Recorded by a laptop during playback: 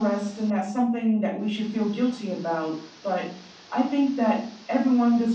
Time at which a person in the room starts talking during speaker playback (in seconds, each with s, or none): none